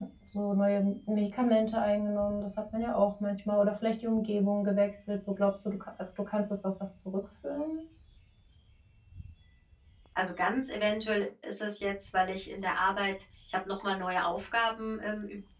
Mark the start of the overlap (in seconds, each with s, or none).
none